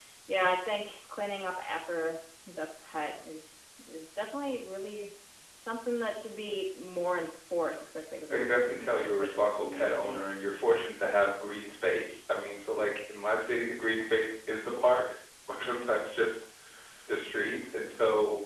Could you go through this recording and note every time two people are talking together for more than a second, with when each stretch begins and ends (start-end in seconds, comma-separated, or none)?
8.3-10.3